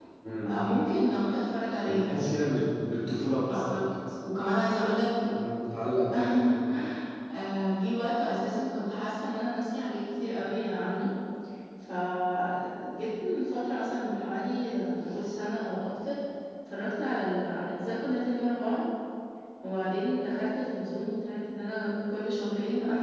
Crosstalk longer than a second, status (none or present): none